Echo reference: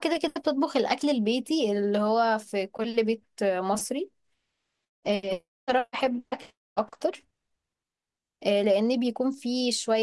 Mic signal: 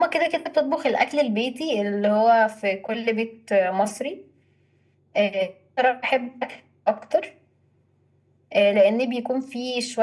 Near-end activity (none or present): none